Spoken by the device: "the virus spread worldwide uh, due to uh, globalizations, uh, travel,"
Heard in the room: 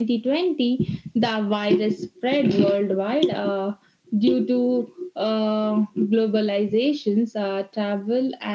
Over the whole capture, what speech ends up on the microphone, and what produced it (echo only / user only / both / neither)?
echo only